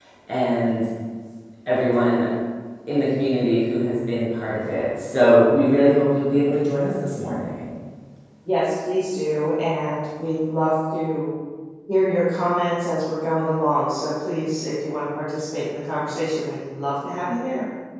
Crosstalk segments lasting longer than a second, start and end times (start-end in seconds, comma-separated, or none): none